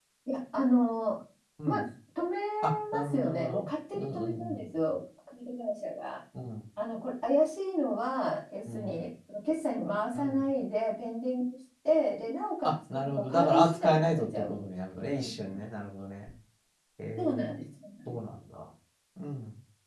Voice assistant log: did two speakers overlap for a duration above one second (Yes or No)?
Yes